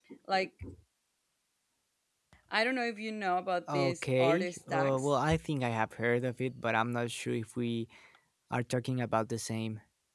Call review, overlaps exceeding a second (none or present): present